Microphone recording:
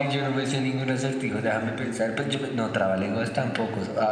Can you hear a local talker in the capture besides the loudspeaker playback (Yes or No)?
No